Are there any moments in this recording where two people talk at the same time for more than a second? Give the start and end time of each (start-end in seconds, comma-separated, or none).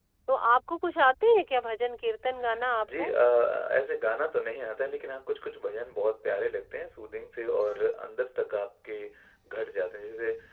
none